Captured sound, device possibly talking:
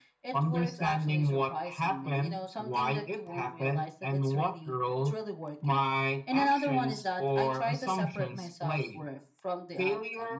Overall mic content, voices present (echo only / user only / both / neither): echo only